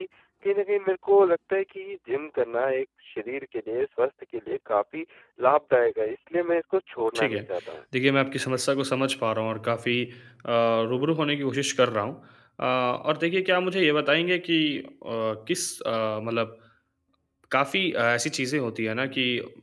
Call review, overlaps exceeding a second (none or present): none